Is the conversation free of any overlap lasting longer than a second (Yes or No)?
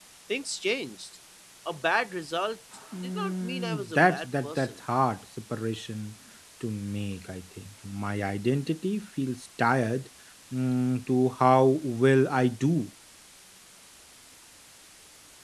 No